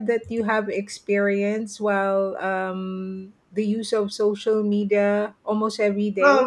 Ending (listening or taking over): taking over